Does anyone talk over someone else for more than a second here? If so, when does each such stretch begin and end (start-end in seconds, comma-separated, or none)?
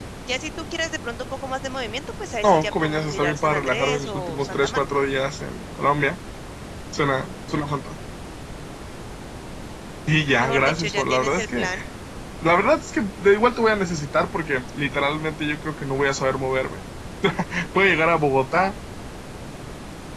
2.4-4.8, 10.4-11.7